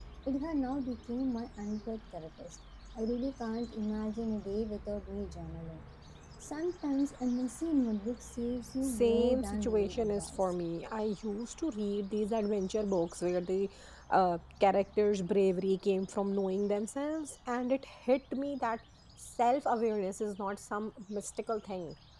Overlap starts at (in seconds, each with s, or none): 8.8 s